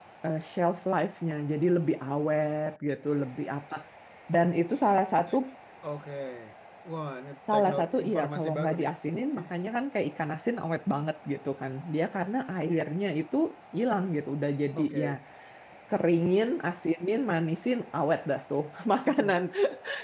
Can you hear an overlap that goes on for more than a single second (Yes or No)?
Yes